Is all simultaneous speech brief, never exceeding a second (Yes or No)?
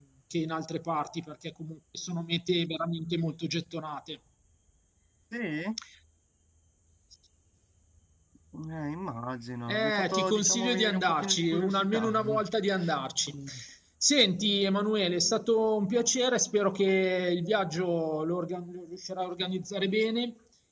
No